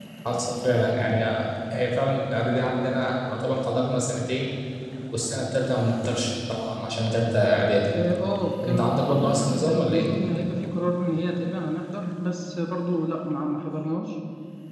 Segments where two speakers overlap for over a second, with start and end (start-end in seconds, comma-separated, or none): 8.7-10.1